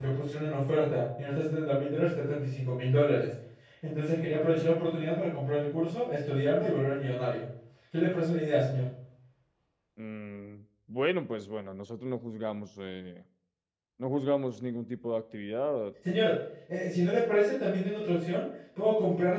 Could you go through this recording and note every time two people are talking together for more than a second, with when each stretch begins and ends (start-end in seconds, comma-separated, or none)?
none